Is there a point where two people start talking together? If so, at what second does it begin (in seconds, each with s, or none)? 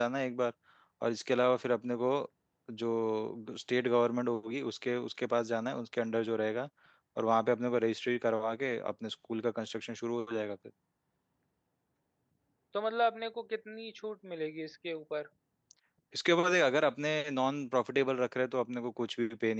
none